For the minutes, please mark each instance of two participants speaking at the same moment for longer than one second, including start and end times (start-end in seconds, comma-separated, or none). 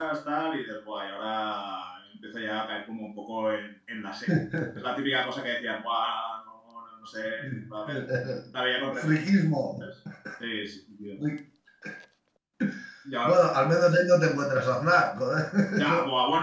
none